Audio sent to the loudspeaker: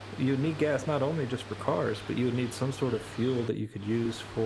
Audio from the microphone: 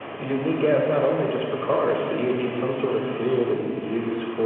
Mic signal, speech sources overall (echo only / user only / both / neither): echo only